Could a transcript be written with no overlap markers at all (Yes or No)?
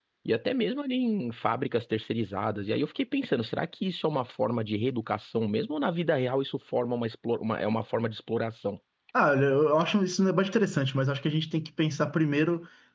Yes